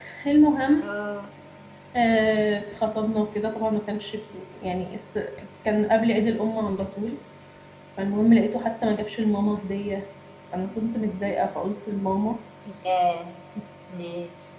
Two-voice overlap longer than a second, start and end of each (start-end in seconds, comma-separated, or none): none